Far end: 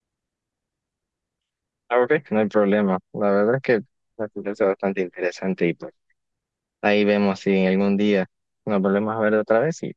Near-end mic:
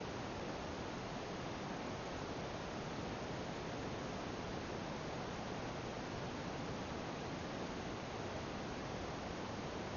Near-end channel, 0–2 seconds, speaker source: neither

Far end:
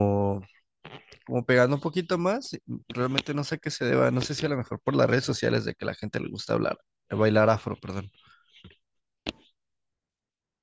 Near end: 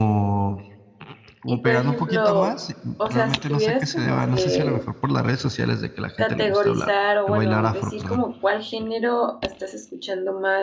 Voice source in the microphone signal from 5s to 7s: both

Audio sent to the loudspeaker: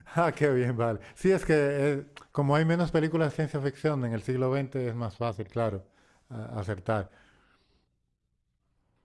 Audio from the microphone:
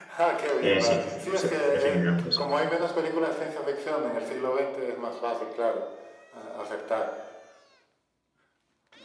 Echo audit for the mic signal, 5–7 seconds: echo only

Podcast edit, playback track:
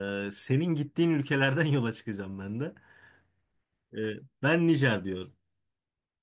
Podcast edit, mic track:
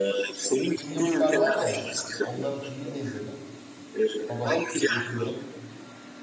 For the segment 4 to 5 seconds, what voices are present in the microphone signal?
both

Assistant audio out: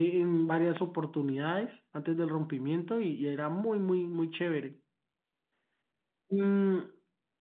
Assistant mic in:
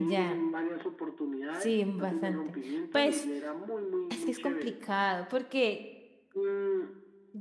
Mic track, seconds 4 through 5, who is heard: both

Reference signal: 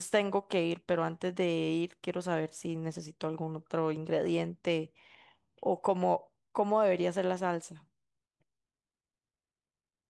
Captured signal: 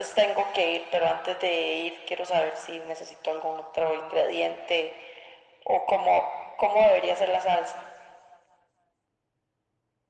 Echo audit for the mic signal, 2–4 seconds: echo only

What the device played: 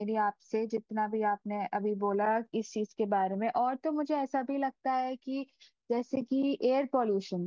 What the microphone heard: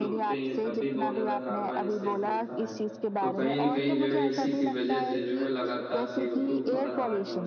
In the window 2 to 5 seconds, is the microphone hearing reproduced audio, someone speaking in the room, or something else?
both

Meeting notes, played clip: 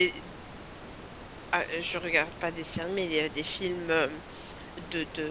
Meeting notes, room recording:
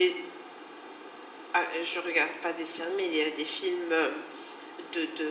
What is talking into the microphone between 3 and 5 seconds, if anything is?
echo only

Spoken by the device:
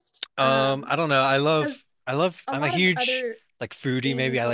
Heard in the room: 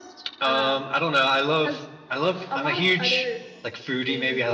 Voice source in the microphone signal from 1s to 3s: echo only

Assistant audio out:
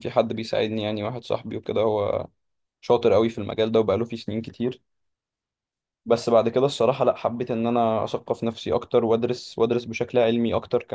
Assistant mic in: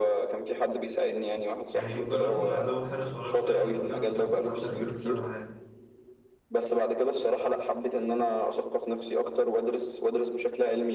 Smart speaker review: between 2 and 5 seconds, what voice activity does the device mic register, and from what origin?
both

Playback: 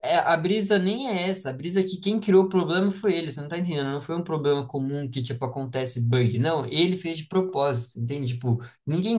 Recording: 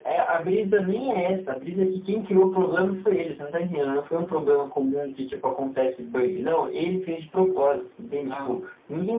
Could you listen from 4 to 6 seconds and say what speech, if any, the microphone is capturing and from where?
echo only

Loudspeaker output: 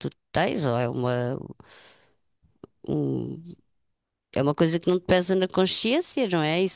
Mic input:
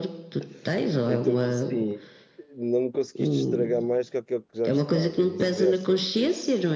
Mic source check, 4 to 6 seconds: both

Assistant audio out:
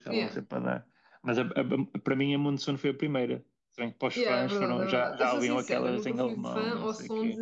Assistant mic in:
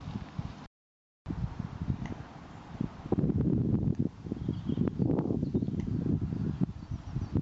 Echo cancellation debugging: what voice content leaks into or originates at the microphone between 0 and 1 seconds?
neither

